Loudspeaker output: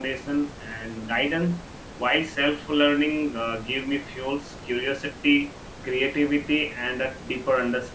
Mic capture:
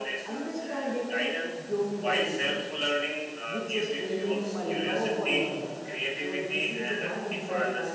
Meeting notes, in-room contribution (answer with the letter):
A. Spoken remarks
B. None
A